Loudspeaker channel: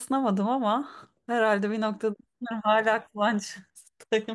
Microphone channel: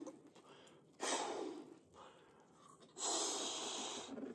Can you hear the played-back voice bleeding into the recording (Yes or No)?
No